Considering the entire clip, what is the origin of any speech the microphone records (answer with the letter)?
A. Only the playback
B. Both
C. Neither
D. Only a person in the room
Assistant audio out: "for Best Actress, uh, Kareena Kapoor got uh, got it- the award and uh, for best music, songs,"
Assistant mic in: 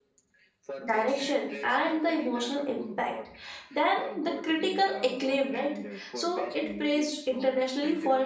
B